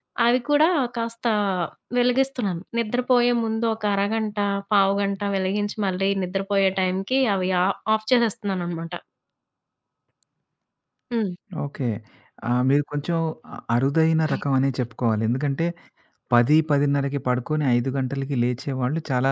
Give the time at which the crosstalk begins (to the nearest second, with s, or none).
none